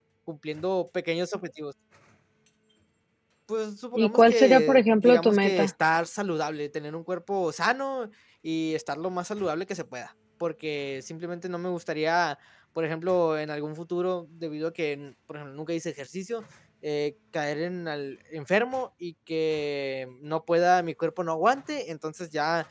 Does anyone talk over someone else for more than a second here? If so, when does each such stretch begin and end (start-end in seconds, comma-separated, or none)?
4.0-5.7